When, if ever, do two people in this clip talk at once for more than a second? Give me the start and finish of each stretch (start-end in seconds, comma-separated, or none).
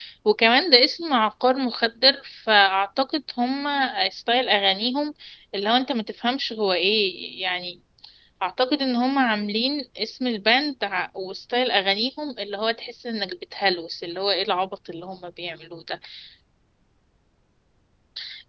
none